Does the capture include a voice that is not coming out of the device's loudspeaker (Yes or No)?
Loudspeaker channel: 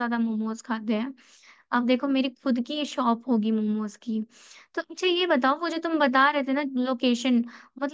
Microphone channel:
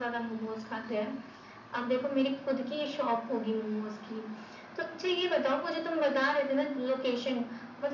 No